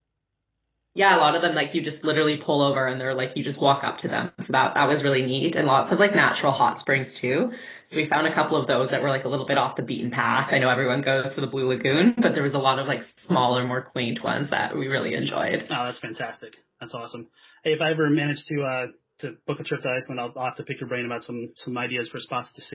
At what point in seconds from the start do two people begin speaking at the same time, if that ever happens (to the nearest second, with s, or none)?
none